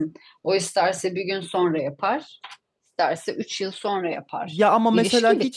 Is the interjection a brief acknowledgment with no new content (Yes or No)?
No